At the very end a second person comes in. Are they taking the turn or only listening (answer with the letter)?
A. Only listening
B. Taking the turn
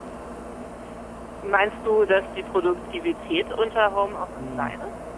B